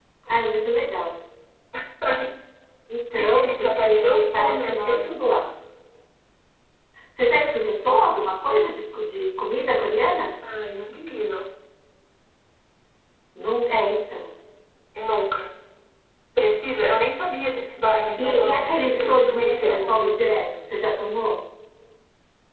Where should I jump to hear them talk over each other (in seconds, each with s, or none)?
3.1 s